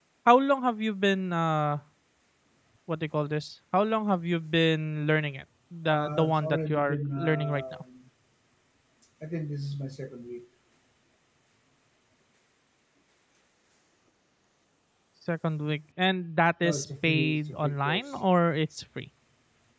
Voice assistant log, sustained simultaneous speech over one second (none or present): present